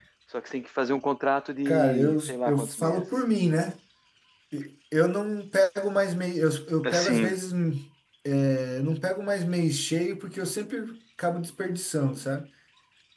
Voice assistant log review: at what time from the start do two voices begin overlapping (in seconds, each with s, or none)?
1.6 s